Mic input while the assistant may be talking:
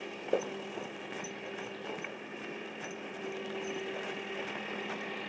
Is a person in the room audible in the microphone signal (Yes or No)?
No